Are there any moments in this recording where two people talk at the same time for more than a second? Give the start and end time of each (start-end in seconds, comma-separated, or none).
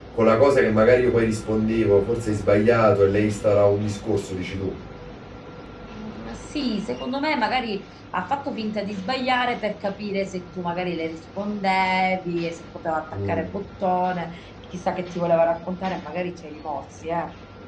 none